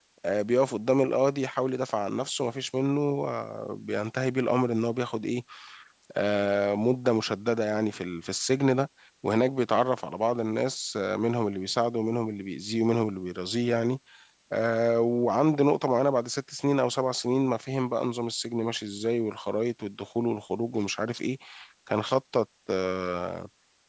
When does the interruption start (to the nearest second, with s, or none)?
none